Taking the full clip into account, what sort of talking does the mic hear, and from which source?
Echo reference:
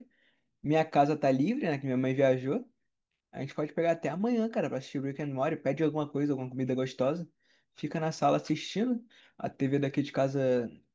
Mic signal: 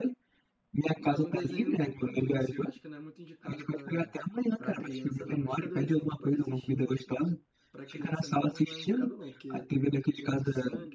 both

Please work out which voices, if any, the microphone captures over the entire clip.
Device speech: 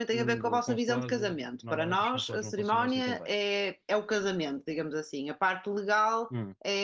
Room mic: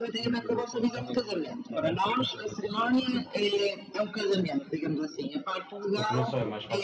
both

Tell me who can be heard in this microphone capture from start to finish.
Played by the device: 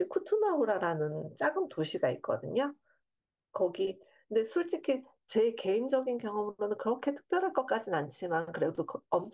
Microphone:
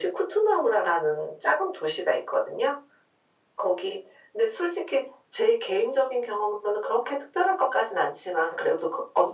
echo only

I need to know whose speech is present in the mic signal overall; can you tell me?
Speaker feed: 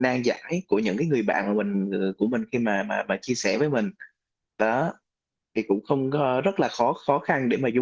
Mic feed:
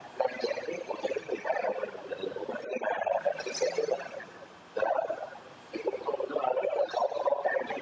echo only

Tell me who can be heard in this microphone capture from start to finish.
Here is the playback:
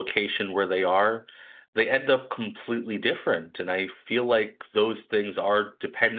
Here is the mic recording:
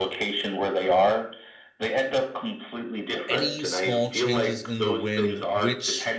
both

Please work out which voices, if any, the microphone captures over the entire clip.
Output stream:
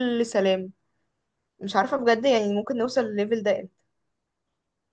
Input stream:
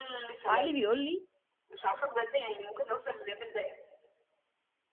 both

